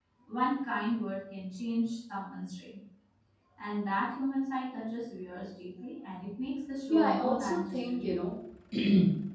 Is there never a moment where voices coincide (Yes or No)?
No